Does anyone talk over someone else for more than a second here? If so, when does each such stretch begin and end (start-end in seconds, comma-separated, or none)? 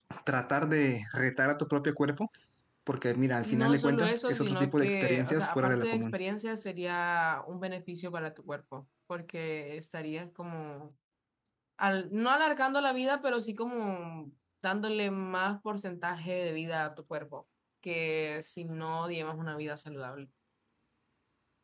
3.5-6.1